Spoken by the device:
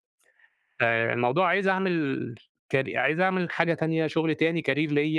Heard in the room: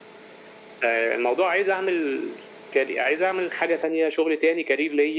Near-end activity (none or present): none